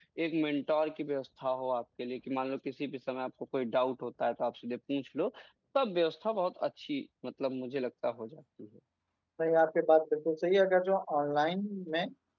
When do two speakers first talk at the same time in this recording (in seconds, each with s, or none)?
none